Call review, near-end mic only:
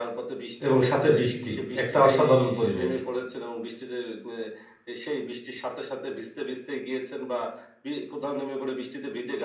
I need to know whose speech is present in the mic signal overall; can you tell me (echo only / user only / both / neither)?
both